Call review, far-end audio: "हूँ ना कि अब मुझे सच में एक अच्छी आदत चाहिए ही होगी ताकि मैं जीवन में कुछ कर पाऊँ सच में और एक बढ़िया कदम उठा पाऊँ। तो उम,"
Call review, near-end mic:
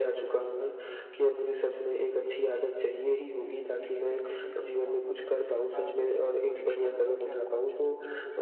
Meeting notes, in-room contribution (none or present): present